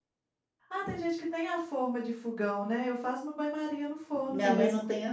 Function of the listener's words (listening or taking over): taking over